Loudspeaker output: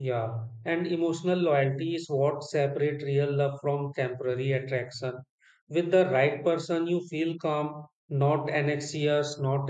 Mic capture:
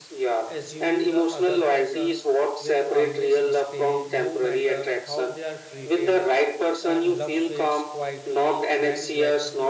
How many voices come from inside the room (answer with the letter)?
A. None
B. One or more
B